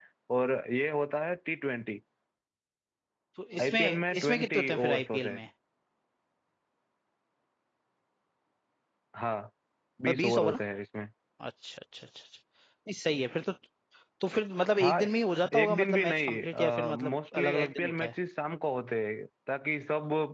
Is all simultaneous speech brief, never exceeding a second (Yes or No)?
No